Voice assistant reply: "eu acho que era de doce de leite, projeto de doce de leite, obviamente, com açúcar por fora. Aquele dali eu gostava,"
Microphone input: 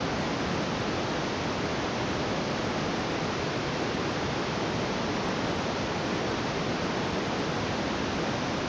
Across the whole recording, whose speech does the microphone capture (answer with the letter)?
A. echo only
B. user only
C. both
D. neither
D